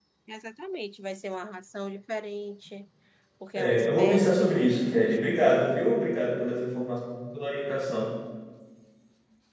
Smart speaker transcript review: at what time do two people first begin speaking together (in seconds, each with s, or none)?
3.5 s